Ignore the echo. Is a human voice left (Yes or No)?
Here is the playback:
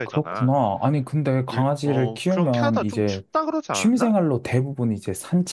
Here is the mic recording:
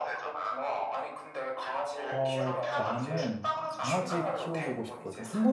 Yes